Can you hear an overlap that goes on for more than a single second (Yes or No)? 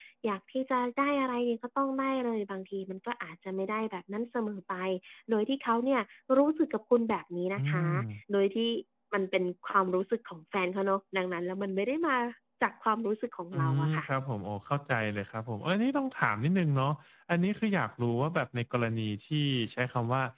No